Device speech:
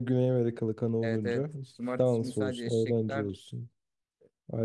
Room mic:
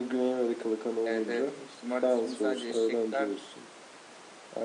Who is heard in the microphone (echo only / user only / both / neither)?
echo only